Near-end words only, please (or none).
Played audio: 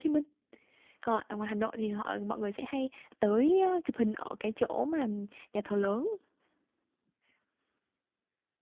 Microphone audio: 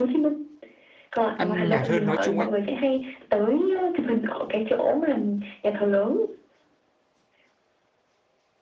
ăn nhạt hơn nói chung ấy